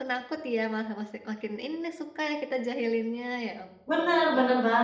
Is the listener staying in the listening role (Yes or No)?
No